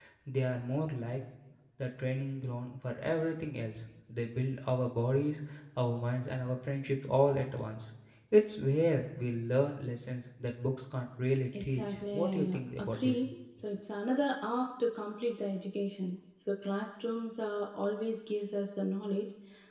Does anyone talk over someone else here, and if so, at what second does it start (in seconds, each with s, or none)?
11.5 s